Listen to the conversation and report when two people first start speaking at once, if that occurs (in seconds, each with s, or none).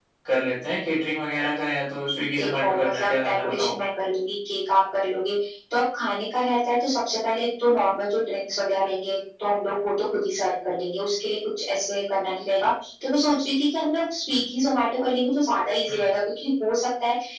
2.2 s